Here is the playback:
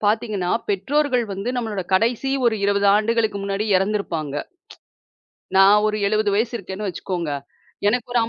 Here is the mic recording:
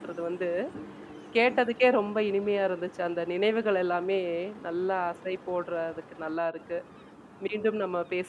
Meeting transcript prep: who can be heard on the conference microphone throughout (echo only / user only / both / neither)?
user only